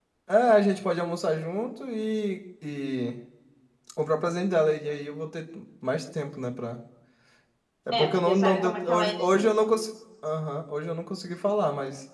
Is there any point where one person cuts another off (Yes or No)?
Yes